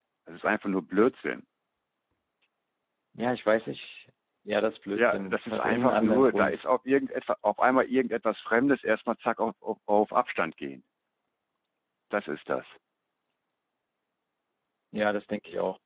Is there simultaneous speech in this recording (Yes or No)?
Yes